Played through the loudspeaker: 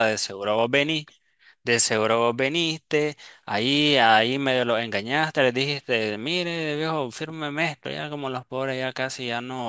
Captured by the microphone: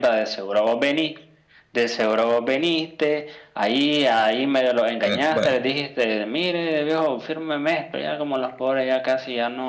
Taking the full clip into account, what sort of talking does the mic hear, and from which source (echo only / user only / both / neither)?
both